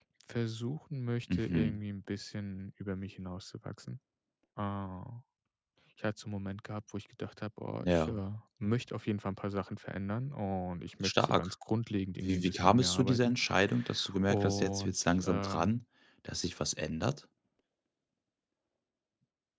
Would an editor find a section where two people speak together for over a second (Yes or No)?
Yes